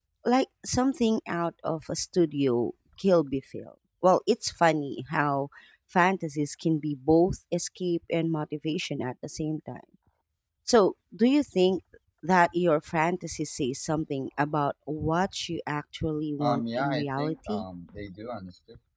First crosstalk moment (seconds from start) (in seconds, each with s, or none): 16.4 s